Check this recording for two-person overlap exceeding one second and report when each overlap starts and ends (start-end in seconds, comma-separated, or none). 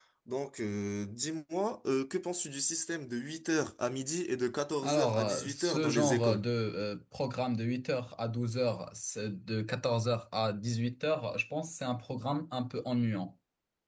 4.8-6.5